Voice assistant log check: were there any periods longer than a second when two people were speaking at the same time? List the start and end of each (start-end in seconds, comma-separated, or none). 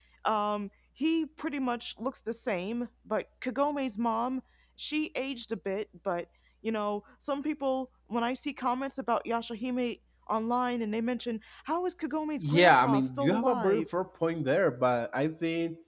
12.4-13.9